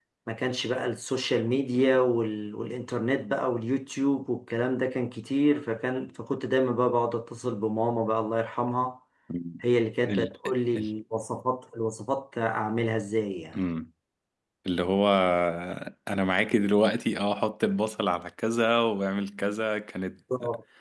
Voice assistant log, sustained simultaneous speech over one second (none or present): none